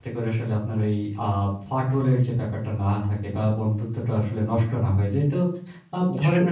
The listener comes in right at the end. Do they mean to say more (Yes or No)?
No